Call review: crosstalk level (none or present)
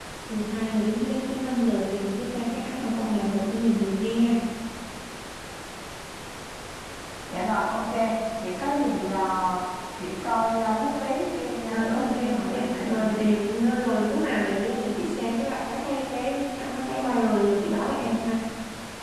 present